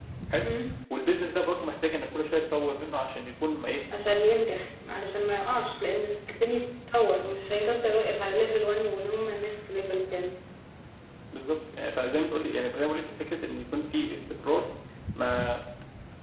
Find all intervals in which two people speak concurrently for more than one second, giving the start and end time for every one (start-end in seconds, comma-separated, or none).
none